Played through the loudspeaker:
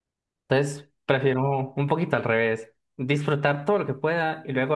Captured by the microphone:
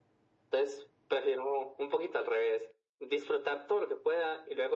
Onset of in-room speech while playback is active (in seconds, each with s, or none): none